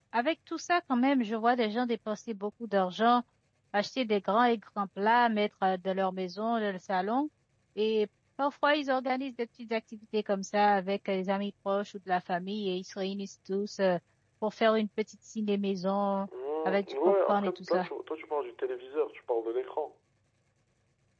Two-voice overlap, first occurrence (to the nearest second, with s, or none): 17 s